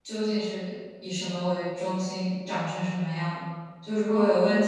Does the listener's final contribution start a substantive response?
No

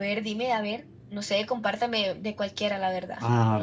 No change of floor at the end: No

